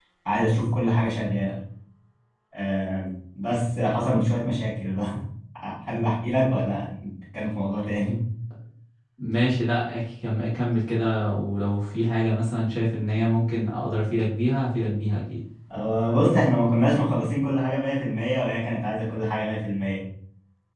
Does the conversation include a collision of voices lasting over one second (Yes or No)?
No